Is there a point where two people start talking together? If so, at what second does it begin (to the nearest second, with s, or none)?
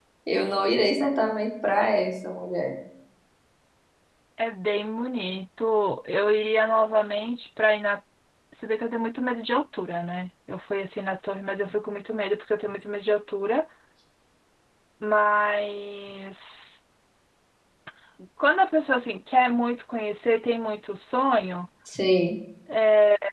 none